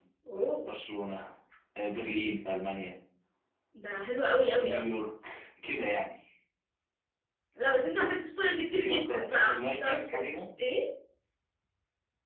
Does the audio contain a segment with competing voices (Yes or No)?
Yes